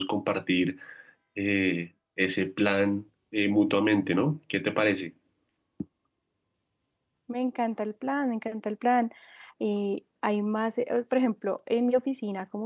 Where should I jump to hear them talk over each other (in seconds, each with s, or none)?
none